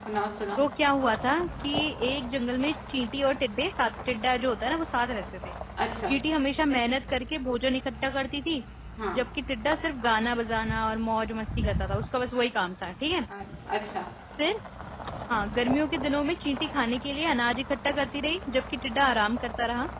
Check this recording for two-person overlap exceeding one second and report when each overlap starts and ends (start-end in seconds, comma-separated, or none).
none